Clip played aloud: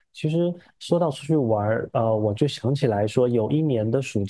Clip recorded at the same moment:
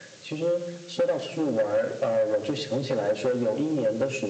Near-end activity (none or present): none